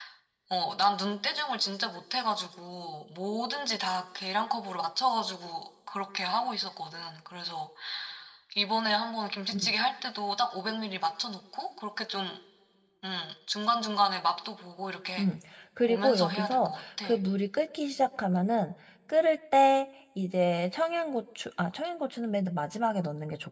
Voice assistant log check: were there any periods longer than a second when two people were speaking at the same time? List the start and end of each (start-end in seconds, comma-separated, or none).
15.9-17.1